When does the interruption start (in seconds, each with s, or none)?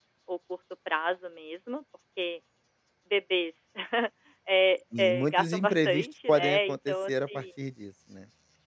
5.0 s